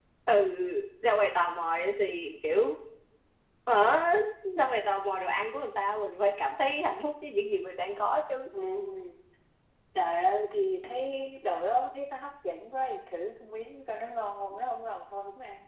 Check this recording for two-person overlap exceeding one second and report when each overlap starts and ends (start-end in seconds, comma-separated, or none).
none